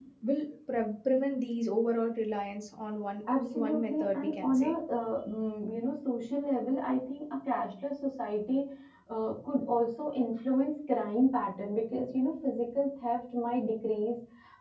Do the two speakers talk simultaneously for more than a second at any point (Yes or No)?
Yes